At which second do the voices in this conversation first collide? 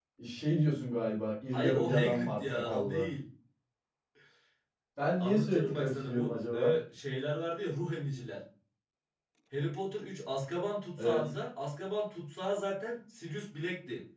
1.5 s

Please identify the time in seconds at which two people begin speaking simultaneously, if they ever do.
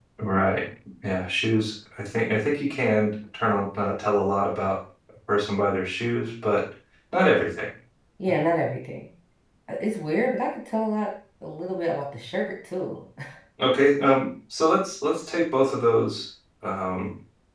none

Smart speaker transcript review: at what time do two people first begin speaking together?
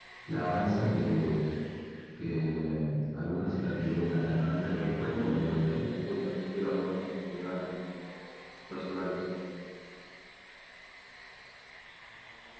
4.3 s

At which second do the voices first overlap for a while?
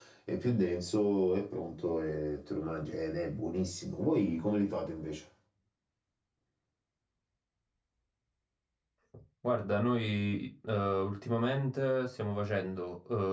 none

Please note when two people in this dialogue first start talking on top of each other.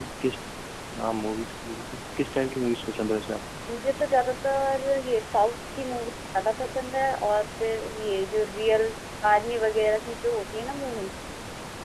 none

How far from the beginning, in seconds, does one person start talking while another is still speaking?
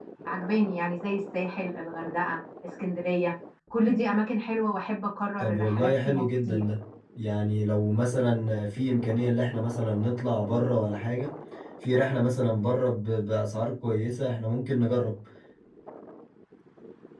5.4 s

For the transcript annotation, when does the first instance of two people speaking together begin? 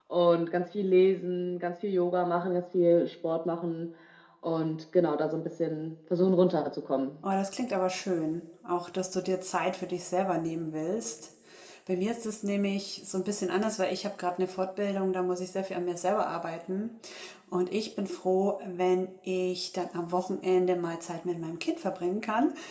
none

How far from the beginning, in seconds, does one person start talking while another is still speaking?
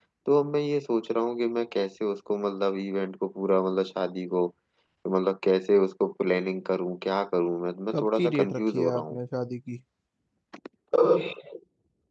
7.9 s

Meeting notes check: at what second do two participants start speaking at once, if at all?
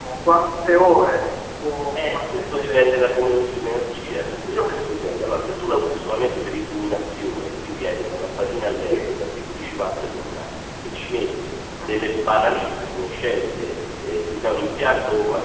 2.0 s

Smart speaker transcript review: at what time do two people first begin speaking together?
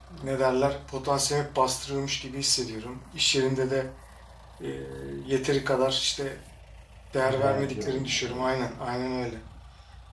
7.2 s

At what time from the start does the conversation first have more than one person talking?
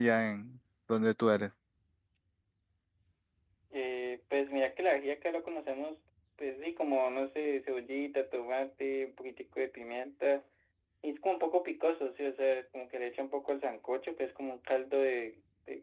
none

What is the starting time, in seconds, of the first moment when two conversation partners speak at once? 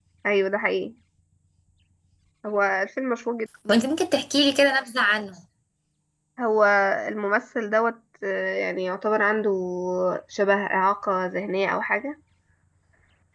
none

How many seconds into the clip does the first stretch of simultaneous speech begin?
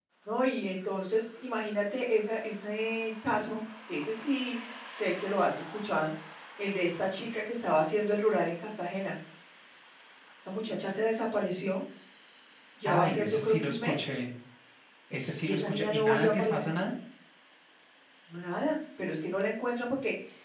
12.8 s

